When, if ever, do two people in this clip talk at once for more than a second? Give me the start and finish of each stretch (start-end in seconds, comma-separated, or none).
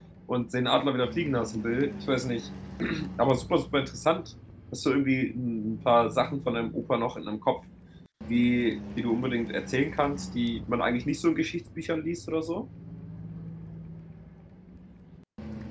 none